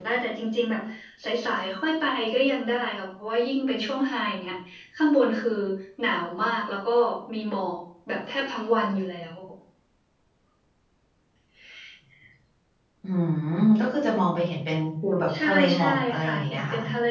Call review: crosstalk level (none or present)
present